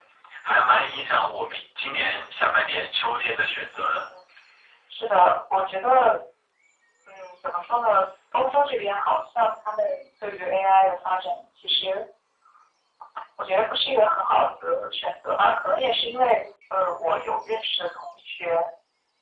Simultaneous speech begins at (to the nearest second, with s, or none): none